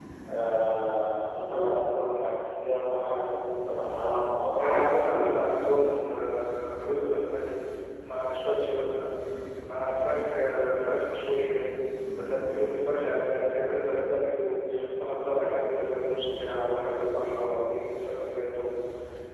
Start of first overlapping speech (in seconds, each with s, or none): 4.6 s